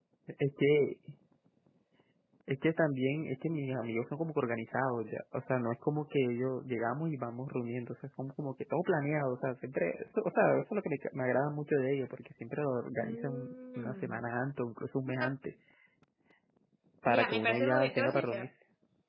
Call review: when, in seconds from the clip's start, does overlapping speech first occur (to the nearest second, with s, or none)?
13 s